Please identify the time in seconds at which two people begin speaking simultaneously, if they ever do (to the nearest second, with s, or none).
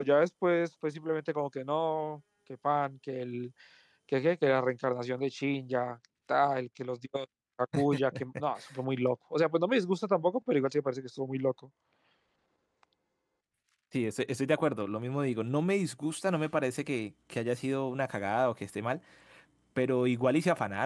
none